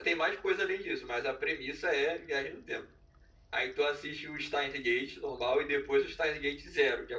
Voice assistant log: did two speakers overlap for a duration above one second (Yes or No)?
No